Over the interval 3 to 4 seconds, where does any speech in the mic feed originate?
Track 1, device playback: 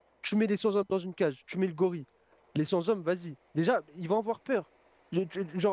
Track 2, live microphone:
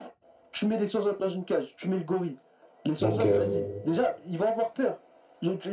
both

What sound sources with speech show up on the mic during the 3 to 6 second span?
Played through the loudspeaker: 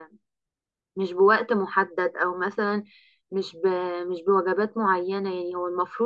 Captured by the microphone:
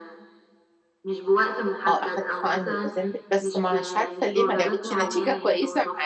both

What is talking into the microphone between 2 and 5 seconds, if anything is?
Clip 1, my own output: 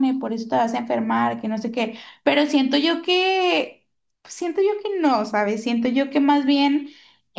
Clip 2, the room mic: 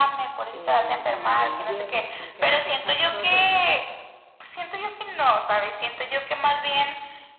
both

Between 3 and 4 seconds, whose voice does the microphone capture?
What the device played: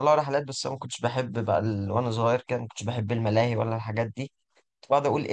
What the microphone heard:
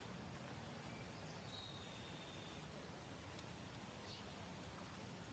neither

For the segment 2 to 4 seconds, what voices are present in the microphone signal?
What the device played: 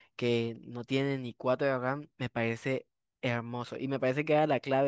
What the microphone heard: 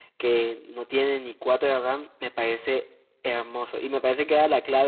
echo only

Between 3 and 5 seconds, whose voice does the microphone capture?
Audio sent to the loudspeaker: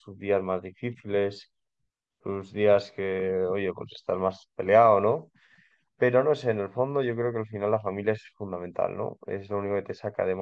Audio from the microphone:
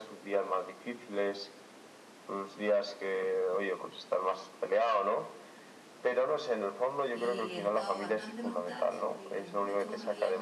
echo only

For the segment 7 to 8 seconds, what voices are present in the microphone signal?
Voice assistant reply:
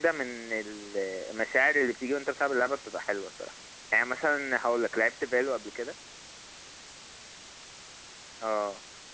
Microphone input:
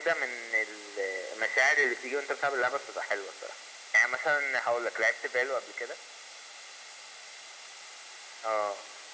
neither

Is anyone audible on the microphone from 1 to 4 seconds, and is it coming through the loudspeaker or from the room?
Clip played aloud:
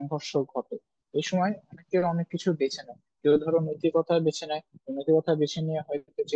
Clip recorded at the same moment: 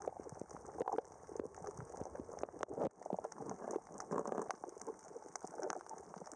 neither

